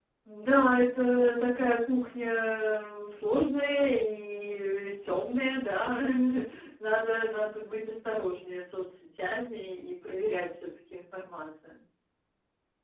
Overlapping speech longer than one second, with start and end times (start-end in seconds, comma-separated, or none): none